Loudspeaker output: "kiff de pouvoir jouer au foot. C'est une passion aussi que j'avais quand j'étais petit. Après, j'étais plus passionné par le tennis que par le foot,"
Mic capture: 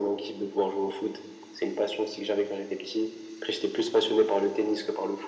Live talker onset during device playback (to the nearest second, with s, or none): none